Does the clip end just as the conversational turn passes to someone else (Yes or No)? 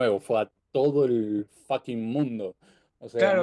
Yes